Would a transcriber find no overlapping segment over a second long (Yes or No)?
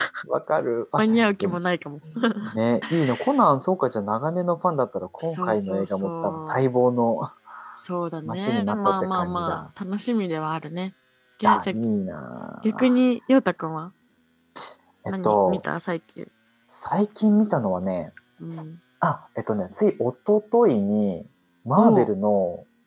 No